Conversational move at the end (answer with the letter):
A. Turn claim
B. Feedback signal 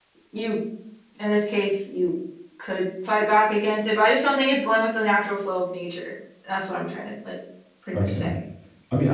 A